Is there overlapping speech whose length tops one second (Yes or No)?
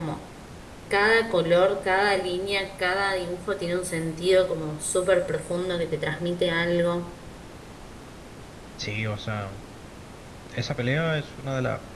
No